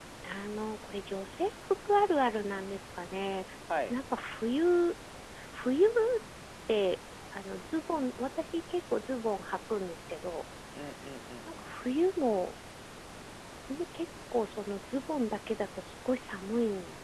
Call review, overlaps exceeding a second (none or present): none